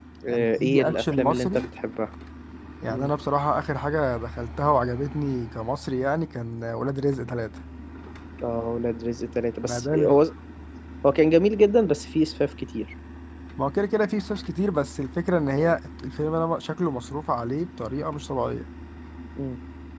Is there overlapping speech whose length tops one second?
Yes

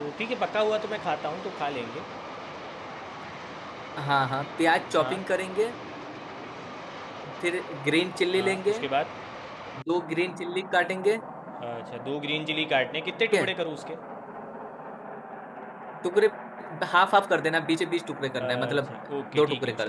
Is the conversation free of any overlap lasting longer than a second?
Yes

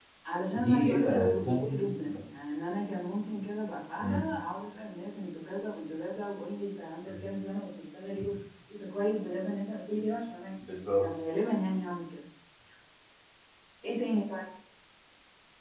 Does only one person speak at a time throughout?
No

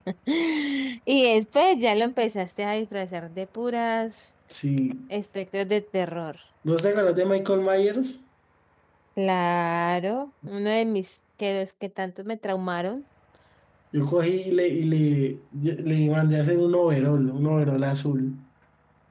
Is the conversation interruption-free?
Yes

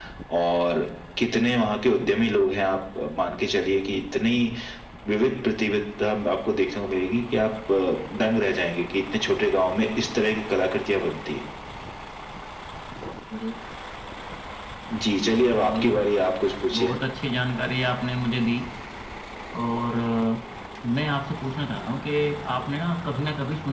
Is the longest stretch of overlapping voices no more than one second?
Yes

